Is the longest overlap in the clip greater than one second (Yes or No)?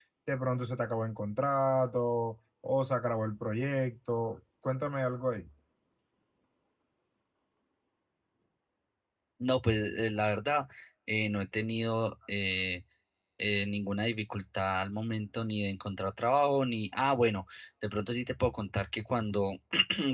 No